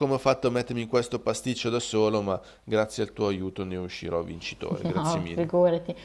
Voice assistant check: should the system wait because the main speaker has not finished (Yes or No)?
No